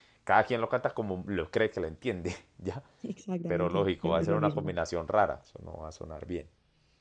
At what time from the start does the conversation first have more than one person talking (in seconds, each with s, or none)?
3.5 s